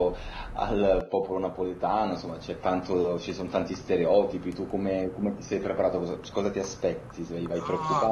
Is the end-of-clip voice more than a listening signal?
Yes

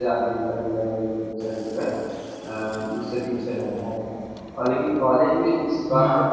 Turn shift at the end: No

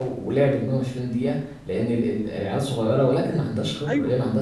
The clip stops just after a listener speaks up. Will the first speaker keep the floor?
Yes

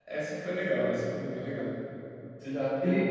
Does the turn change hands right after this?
No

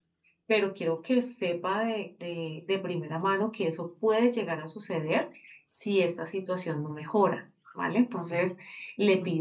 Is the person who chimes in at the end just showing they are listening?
Yes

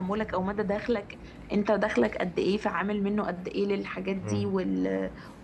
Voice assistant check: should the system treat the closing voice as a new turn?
No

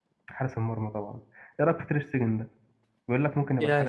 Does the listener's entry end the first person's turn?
Yes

